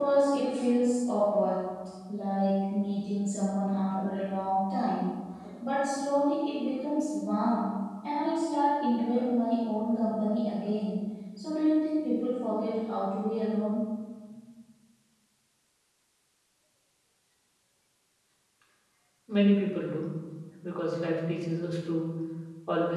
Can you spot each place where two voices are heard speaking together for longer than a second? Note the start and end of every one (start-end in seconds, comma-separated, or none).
none